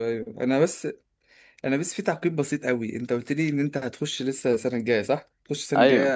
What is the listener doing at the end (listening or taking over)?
listening